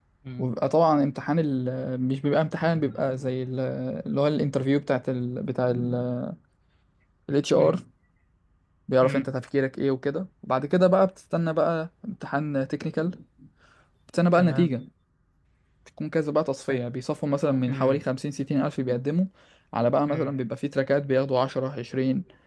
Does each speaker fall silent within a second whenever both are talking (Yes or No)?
Yes